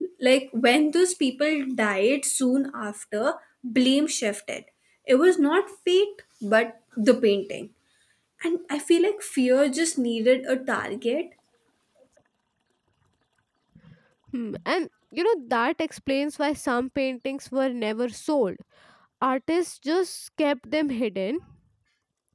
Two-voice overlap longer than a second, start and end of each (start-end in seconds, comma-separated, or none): none